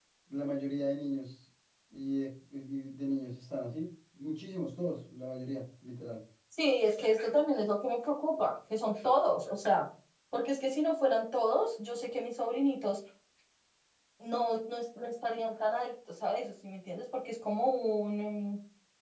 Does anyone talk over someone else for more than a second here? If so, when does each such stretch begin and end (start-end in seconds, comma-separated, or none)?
none